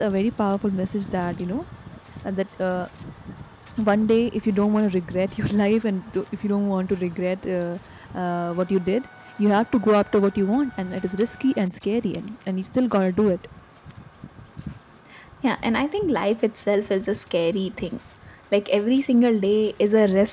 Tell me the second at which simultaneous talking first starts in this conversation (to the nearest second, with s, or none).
none